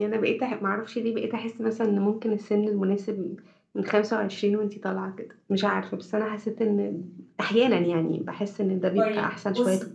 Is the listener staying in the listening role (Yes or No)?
No